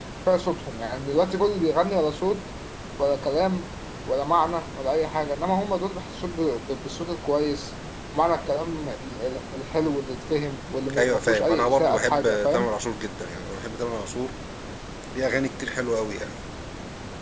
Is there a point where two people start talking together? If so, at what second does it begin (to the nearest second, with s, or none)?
11 s